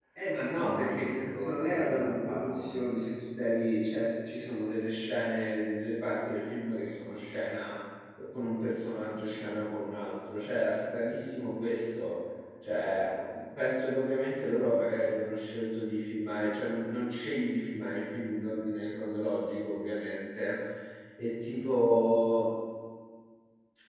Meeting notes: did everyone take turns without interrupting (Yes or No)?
No